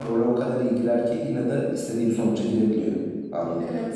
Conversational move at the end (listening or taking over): taking over